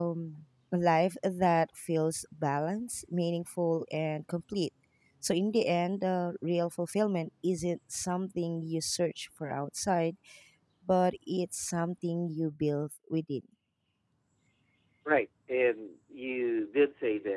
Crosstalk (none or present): none